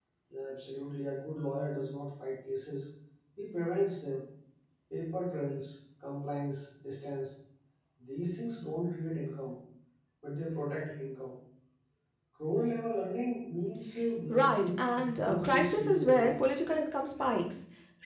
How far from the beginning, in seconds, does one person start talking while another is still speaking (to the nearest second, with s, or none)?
14 s